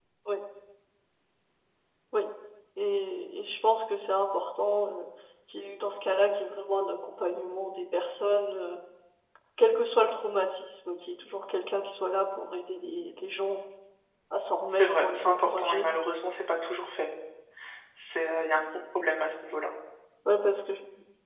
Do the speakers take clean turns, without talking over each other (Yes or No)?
No